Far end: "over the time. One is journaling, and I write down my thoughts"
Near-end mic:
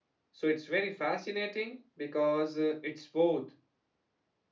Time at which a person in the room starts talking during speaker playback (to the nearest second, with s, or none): 0 s